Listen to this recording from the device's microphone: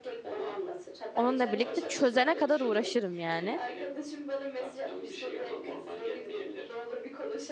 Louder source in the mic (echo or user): user